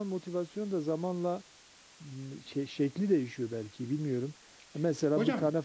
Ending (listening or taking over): listening